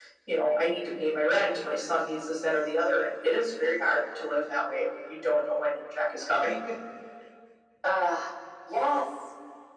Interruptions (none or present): none